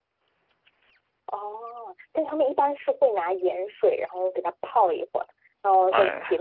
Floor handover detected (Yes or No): No